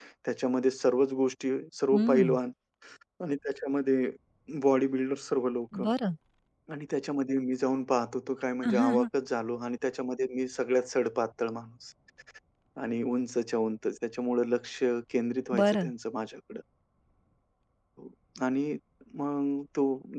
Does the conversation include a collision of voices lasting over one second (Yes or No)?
No